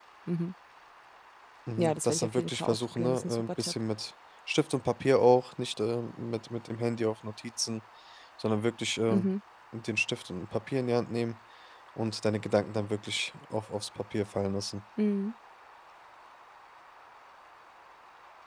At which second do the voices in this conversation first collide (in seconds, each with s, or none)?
1.8 s